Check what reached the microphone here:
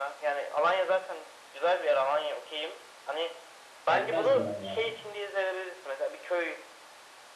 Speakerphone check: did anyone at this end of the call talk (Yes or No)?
Yes